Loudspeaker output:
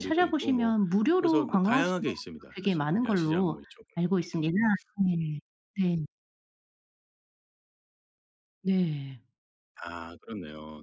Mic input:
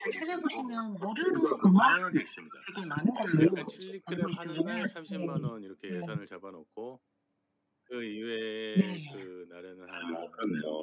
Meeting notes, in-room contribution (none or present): present